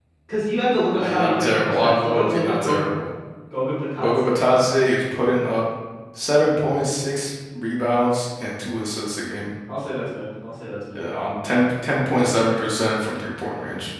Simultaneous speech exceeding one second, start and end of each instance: 0.9-2.9

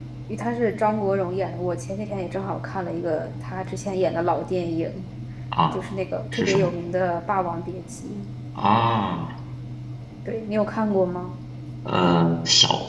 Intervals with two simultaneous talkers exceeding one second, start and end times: none

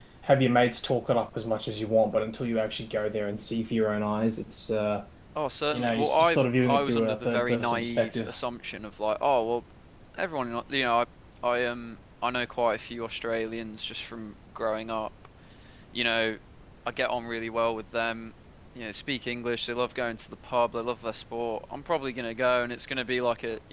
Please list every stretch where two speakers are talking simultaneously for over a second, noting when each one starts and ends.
5.7-8.3

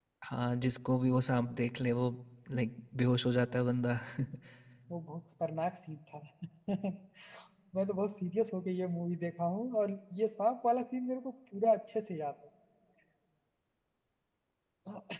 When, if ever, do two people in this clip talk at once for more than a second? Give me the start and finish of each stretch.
none

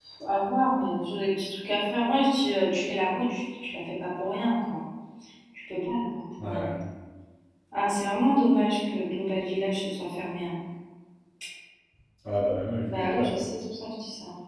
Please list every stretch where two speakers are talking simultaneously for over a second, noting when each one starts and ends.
none

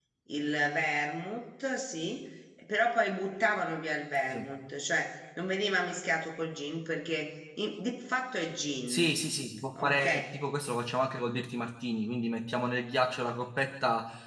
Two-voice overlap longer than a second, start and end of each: none

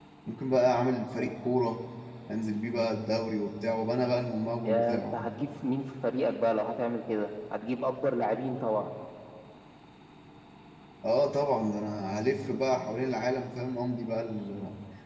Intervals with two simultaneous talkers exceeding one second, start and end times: none

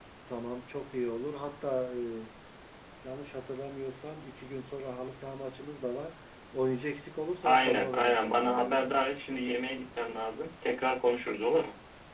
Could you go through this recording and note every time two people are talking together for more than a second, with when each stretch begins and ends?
7.4-8.9

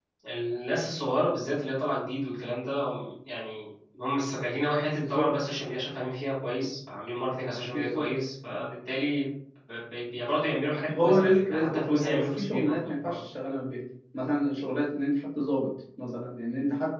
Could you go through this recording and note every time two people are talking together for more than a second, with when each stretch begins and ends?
11.0-13.2

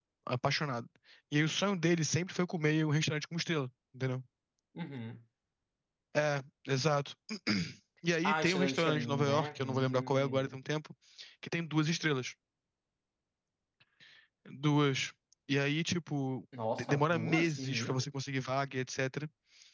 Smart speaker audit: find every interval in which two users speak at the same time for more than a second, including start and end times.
8.2-10.5, 16.8-18.0

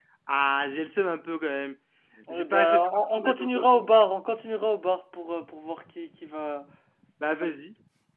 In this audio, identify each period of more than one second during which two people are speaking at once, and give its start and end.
2.3-3.6

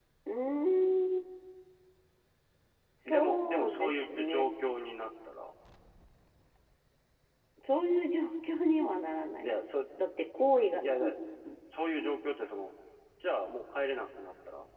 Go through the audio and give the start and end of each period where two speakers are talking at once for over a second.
3.1-4.4

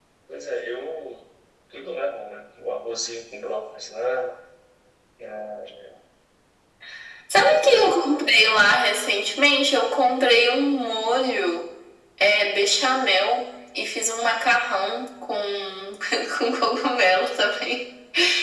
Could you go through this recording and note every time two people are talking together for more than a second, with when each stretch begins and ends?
none

